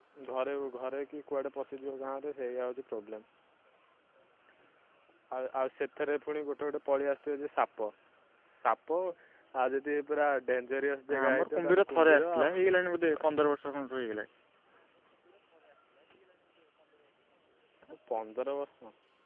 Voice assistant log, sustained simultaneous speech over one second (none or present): present